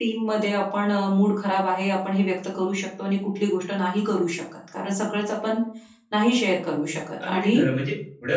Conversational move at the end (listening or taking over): taking over